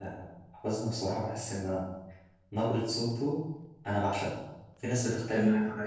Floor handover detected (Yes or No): No